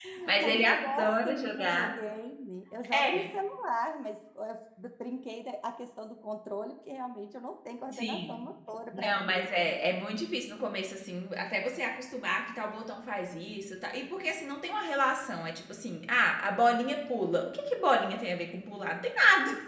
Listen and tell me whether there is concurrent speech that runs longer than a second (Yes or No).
Yes